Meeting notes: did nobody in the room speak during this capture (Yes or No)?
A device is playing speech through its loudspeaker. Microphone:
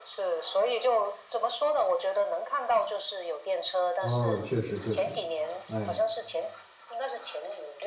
No